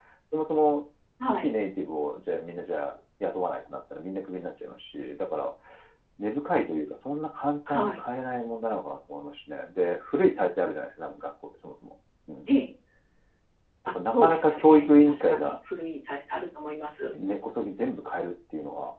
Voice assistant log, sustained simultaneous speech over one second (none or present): present